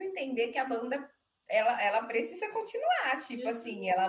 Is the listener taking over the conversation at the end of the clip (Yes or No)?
No